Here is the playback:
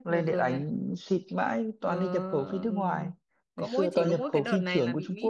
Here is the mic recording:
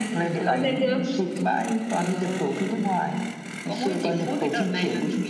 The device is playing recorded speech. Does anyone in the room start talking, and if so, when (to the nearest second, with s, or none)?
0 s